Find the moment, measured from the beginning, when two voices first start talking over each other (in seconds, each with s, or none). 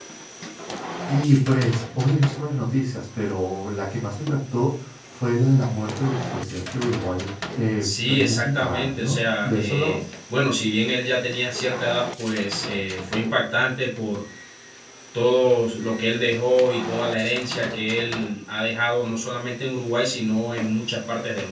7.8 s